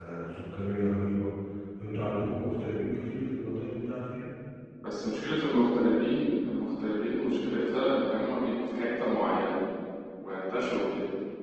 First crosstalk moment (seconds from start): none

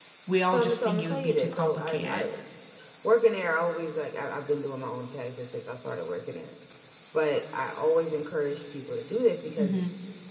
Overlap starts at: 0.5 s

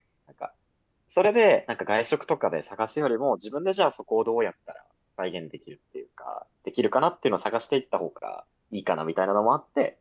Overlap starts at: none

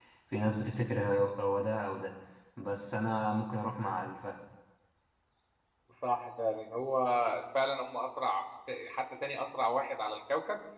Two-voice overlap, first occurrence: none

